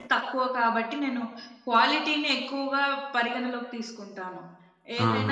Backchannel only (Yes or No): No